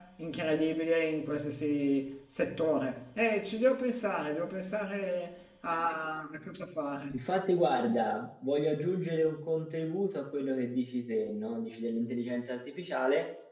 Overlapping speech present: No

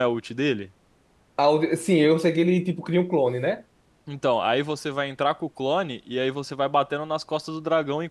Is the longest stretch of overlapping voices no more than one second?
Yes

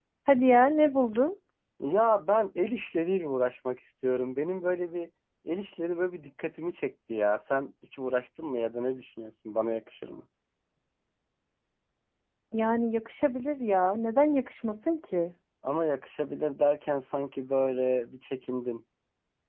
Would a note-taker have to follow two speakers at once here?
No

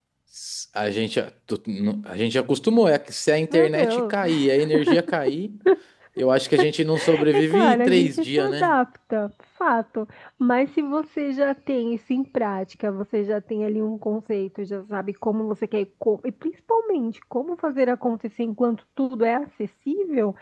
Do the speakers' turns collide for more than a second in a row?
Yes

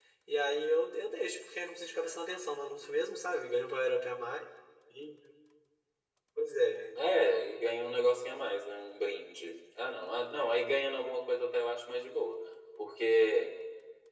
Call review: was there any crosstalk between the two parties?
No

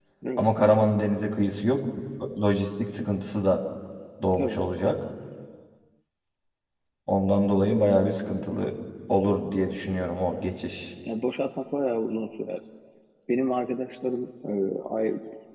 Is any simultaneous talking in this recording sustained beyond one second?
No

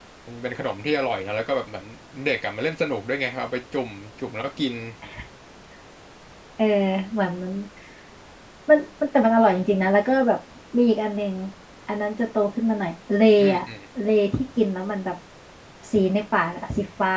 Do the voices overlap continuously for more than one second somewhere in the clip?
No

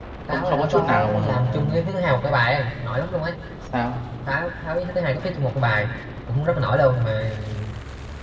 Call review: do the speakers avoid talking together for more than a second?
No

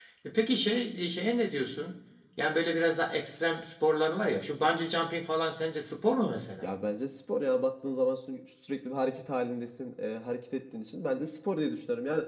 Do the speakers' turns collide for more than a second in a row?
No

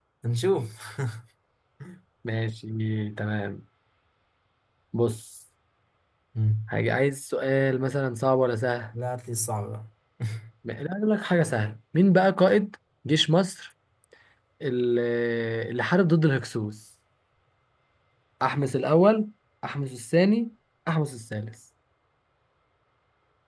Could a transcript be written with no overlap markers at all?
Yes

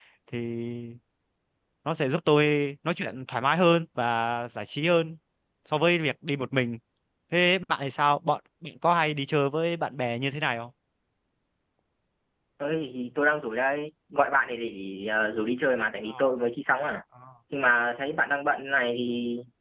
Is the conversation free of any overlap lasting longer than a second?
Yes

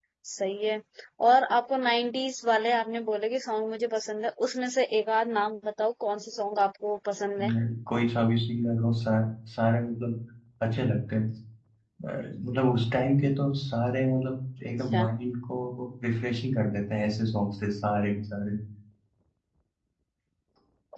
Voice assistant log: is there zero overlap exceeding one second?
Yes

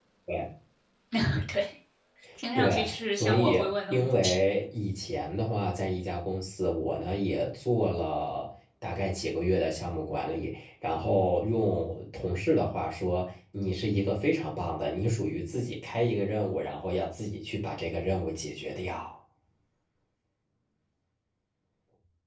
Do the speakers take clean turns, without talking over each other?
No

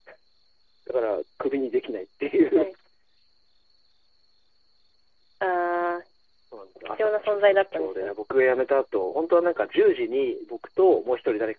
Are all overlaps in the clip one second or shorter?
No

